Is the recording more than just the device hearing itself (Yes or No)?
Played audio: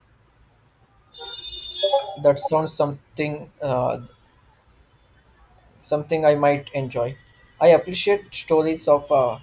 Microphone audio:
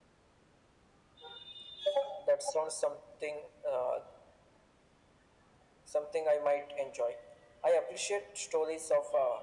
No